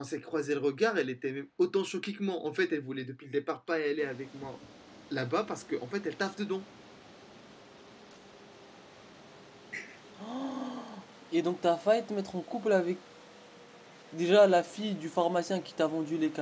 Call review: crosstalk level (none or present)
none